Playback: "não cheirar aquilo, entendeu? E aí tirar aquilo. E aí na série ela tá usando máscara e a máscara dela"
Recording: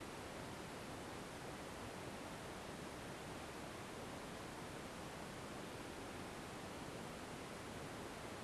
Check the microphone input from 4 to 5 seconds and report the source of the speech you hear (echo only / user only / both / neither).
neither